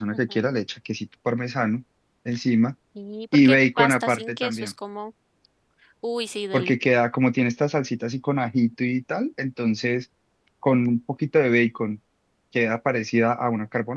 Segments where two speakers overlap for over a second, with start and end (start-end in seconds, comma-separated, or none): 3.5-4.7